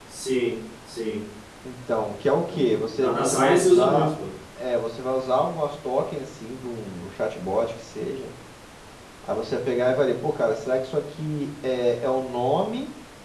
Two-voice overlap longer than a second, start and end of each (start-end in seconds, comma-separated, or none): 2.9-4.1